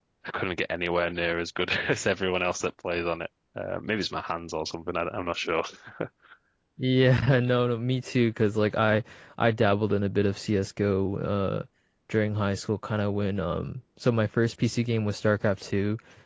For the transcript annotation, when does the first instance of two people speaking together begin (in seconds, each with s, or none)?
none